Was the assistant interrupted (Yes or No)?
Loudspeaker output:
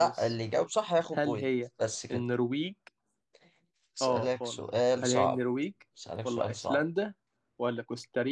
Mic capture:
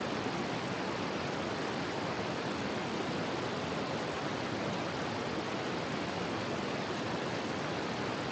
No